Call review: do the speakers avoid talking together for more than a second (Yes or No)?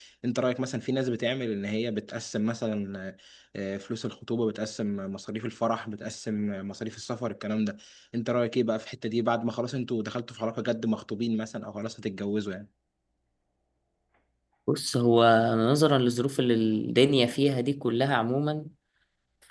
Yes